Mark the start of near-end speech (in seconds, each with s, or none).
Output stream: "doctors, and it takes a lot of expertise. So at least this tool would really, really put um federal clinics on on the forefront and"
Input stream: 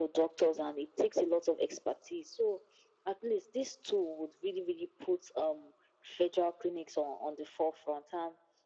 none